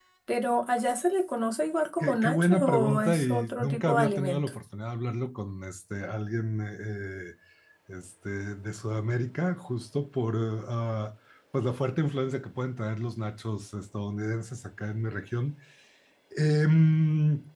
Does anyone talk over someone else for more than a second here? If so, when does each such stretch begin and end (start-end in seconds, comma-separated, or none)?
2.0-4.5